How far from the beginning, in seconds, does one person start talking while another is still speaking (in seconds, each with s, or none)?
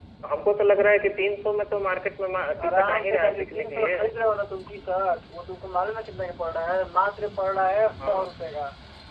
2.6 s